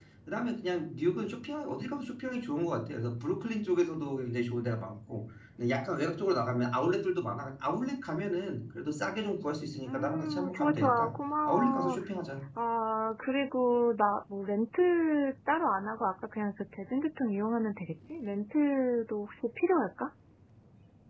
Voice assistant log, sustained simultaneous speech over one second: present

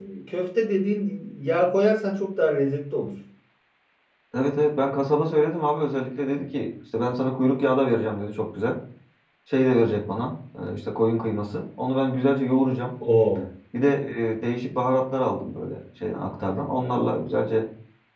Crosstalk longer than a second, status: none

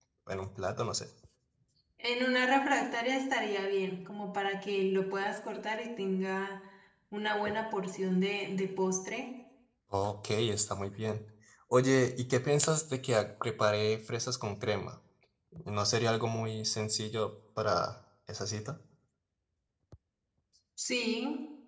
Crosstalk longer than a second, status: none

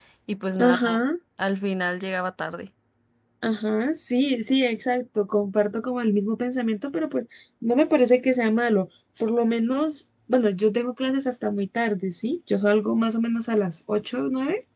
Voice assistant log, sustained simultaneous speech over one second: none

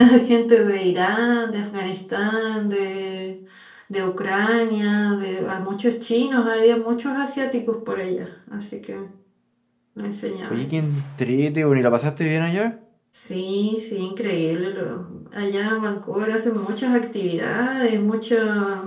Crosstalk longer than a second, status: none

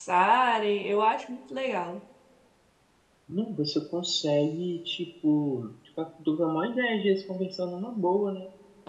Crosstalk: none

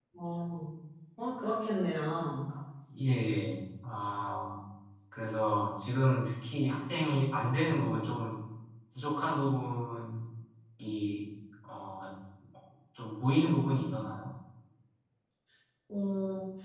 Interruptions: none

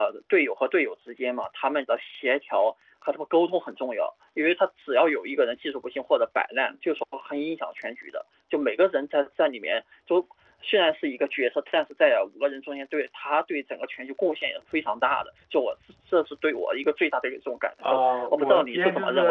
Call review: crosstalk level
present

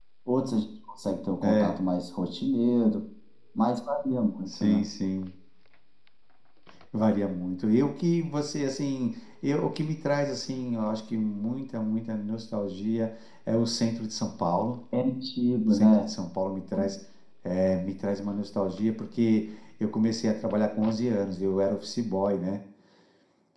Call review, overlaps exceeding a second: none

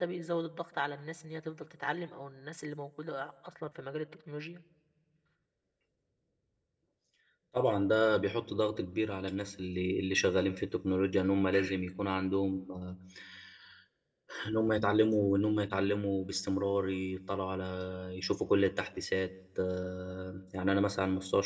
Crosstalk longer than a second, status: none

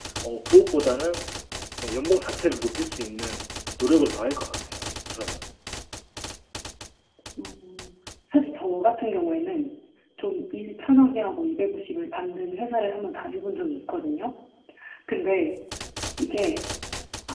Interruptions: none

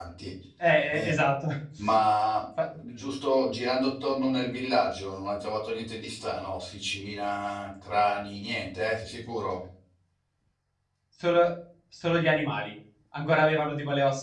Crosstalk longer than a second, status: none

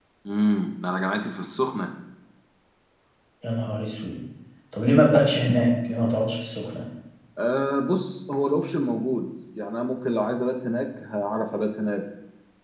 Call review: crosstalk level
none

